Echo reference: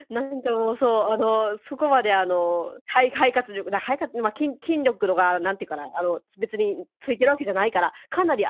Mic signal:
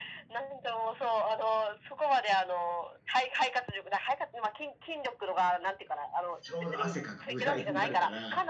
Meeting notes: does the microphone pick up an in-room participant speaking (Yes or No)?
Yes